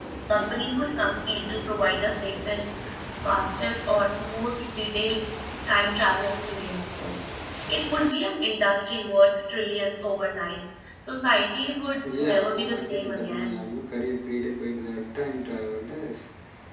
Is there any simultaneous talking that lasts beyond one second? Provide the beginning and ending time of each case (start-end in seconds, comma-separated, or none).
12.2-13.5